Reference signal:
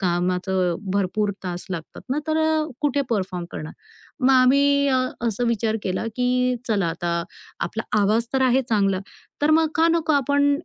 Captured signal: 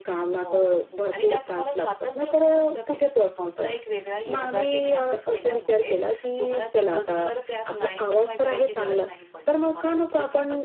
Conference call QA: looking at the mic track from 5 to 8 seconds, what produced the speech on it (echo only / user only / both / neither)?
both